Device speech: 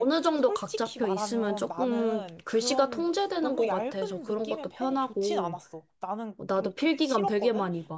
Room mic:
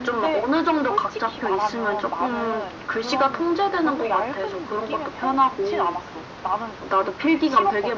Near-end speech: none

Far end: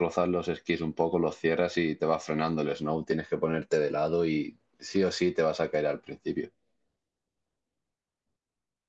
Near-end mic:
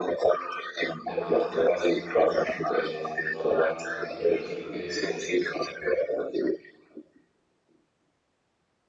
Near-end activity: present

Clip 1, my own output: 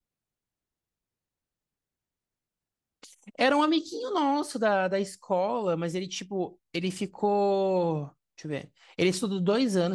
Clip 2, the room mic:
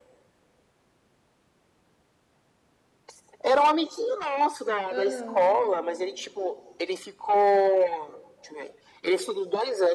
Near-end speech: present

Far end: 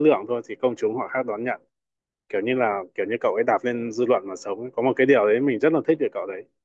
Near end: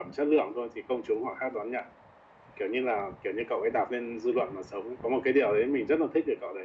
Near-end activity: none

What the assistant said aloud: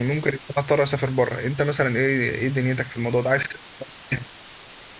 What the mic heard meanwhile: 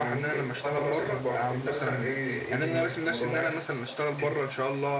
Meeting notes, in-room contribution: present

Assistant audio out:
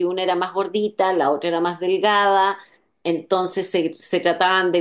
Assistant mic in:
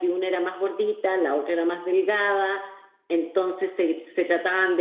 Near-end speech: none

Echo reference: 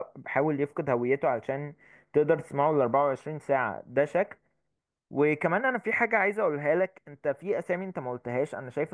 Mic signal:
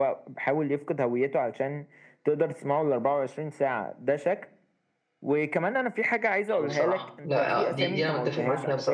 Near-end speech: present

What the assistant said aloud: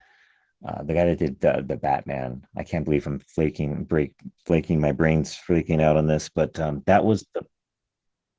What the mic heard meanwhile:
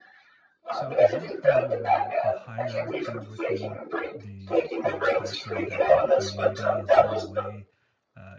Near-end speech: present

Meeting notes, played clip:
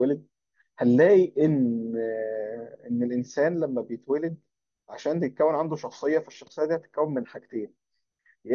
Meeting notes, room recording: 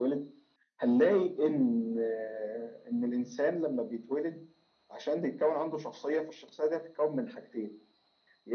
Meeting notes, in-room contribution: none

